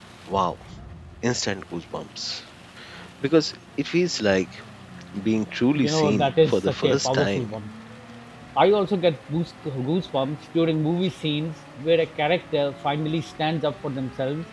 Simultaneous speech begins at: 5.8 s

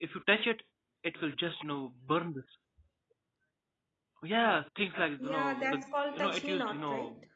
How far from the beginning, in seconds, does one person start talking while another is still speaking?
5.2 s

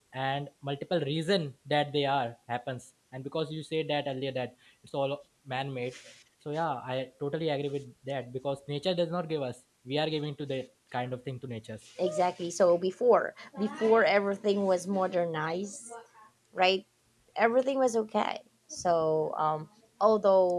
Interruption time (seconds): none

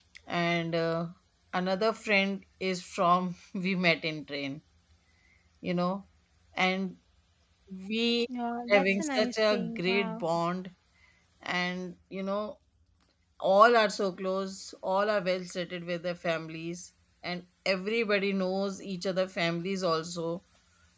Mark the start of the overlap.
8.7 s

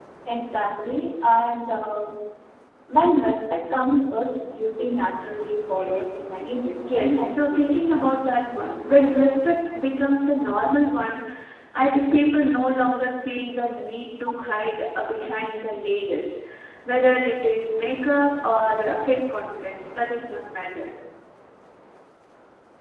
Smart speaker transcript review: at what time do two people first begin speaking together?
6.8 s

